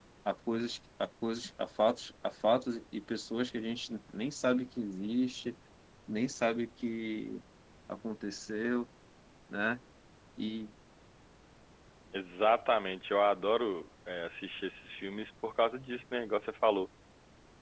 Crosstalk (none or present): none